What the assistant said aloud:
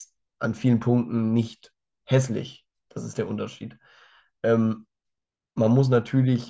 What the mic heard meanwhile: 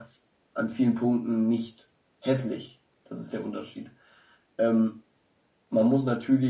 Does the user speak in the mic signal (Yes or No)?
No